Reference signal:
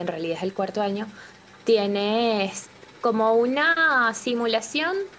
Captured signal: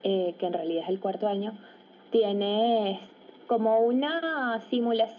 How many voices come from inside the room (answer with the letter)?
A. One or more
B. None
B